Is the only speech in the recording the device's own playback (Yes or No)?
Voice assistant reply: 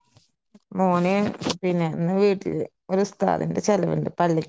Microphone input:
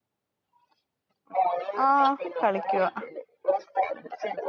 No